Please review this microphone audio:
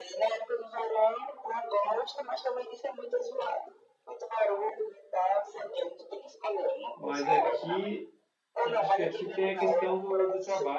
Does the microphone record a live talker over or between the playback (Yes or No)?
Yes